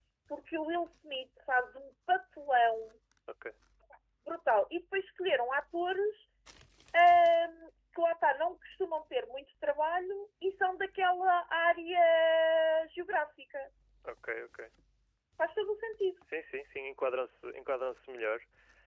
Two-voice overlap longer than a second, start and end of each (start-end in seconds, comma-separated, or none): none